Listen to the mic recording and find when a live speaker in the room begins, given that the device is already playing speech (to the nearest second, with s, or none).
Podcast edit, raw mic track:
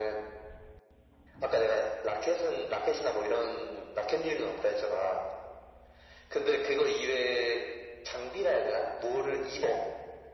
none